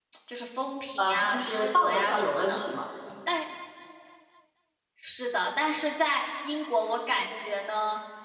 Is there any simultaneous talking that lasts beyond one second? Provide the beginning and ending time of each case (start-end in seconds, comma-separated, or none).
1.0-2.6